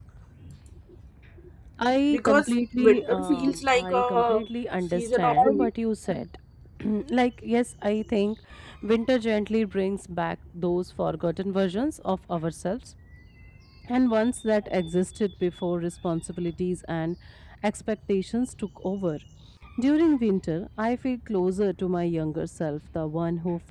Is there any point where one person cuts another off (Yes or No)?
Yes